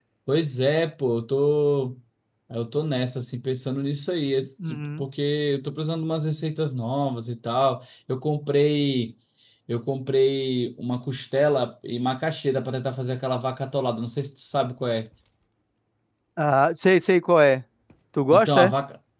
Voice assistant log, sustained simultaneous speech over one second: none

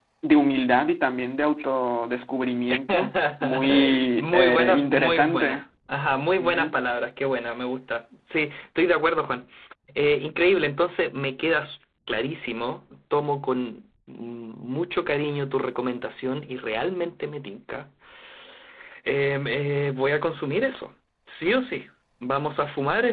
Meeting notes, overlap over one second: present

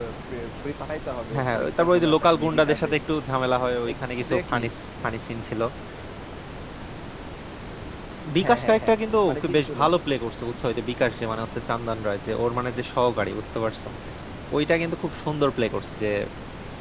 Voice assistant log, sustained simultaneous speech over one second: present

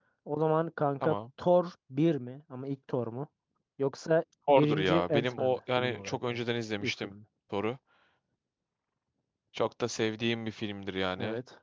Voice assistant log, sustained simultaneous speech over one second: present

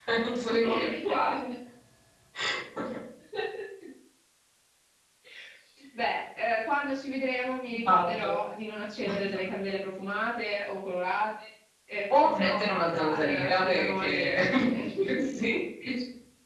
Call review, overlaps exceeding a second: present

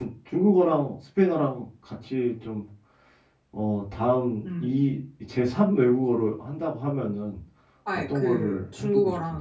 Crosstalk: present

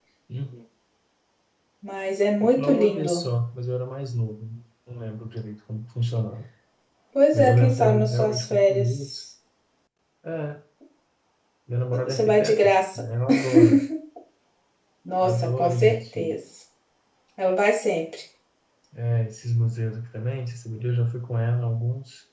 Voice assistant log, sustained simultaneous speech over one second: present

